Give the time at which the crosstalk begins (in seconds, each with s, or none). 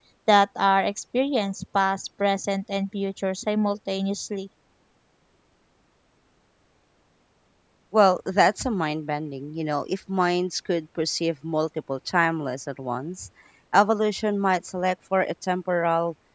none